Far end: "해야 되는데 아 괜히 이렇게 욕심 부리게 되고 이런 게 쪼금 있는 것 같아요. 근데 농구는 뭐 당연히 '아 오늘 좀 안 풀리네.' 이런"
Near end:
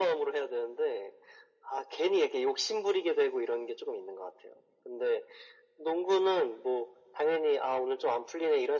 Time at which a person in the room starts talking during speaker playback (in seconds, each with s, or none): none